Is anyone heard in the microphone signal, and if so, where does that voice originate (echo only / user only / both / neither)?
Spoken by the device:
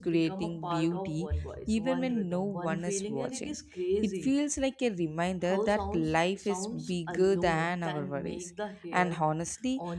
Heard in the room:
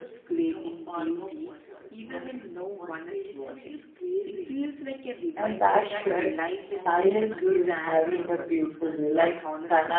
both